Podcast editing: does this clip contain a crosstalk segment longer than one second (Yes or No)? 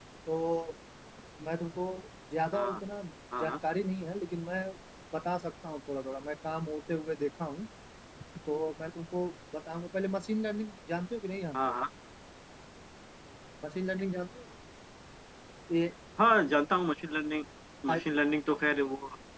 No